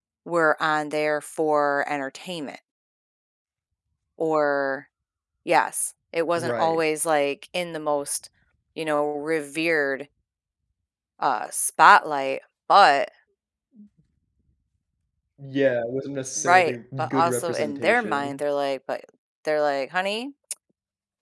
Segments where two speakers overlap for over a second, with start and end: 16.4-18.4

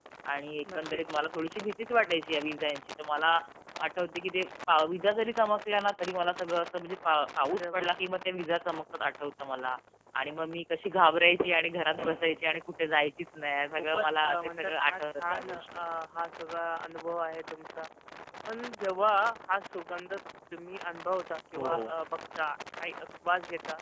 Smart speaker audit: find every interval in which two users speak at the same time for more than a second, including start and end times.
13.7-15.7

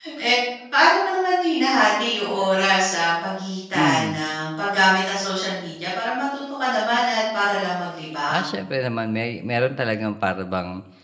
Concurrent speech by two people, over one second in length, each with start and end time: none

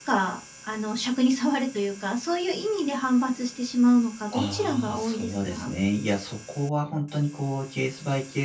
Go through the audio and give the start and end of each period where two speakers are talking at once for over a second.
4.3-5.7

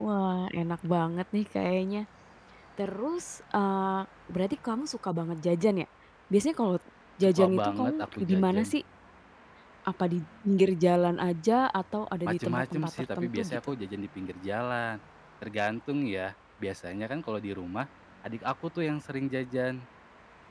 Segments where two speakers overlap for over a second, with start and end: 7.2-8.7, 12.2-13.7

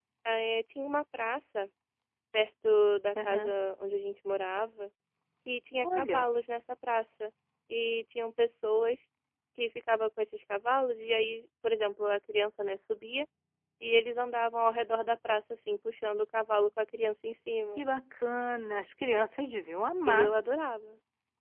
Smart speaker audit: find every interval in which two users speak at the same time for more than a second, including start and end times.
none

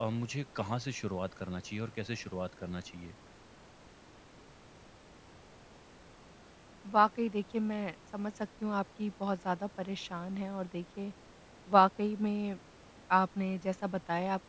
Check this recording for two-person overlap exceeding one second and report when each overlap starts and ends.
none

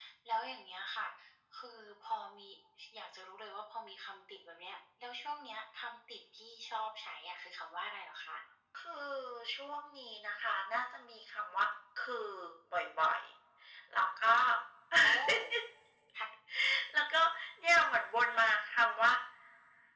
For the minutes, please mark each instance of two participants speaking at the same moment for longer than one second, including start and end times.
none

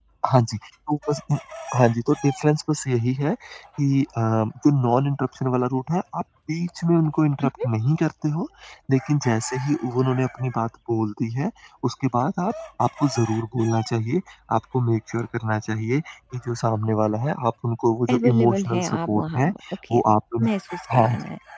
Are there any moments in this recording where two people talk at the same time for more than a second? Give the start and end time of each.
18.1-19.5

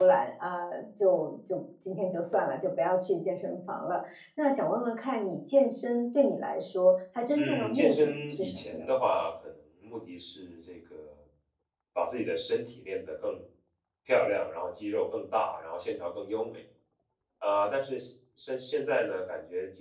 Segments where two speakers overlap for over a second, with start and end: 7.3-8.9

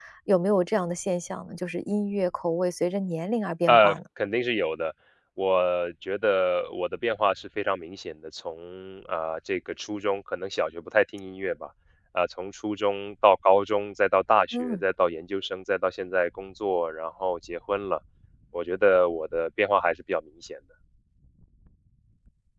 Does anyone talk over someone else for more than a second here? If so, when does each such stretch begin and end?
none

